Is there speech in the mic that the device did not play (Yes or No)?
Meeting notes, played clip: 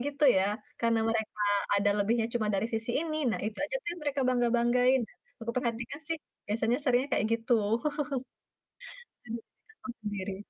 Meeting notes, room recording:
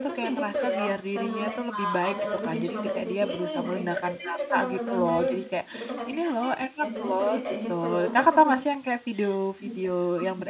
Yes